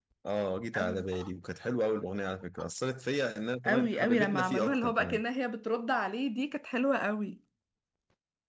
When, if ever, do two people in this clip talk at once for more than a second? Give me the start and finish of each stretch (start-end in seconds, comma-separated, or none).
3.6-5.2